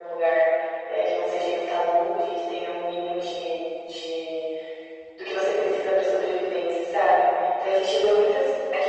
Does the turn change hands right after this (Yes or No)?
No